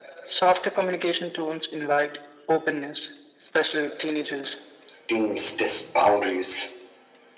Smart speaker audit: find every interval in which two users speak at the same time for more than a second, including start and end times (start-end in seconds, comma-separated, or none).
none